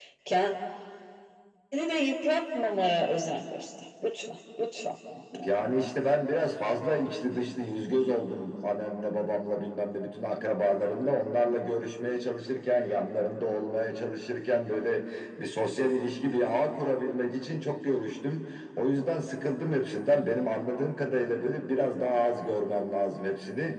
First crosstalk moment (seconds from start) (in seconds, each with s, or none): none